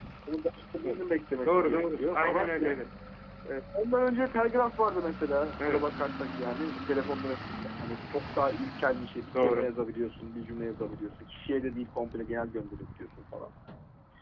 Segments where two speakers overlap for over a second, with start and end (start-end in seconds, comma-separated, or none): 1.4-2.8